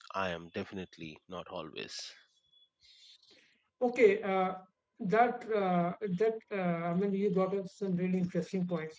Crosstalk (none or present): none